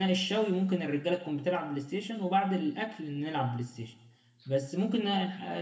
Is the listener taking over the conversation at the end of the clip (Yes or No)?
No